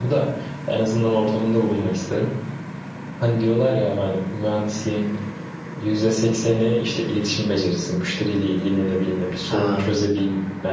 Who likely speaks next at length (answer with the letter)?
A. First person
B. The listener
A